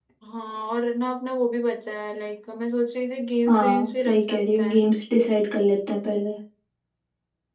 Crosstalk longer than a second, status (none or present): present